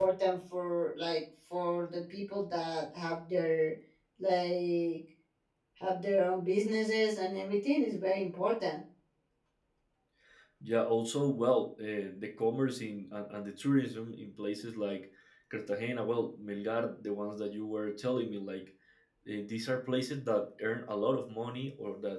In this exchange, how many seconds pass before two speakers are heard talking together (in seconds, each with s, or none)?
none